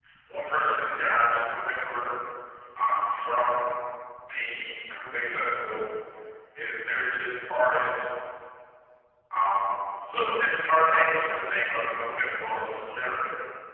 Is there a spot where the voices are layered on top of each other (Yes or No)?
No